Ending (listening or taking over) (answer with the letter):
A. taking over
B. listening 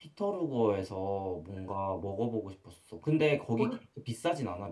B